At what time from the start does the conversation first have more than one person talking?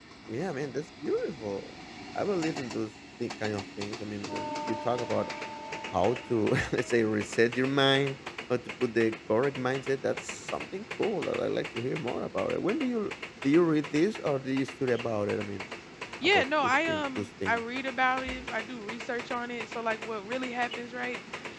16.2 s

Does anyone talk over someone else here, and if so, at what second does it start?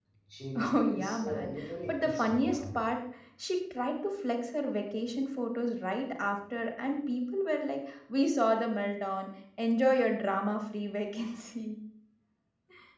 0.7 s

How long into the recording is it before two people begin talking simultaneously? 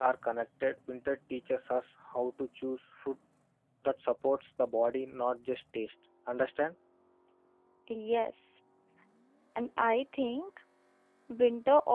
none

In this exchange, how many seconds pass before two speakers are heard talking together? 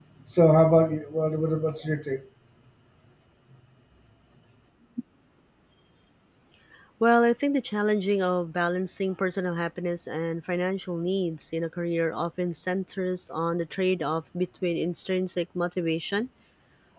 none

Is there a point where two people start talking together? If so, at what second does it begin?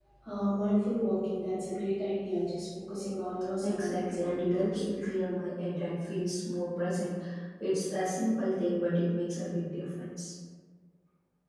3.6 s

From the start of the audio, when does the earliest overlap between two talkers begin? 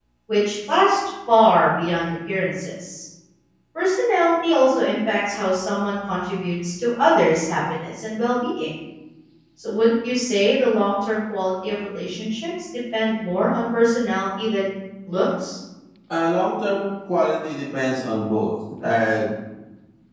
none

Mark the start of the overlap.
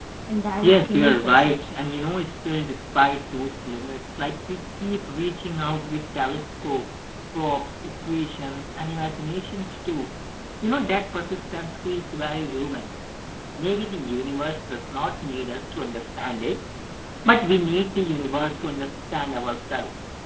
0.6 s

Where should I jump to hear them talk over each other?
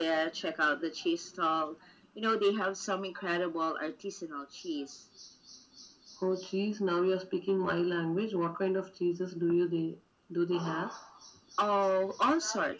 none

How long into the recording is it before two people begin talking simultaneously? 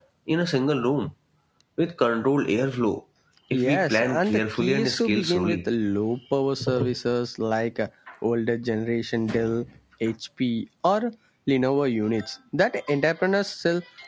3.6 s

